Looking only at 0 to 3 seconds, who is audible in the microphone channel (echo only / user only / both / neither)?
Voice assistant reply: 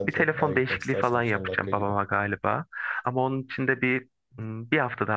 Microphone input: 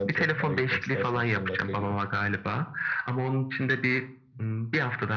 echo only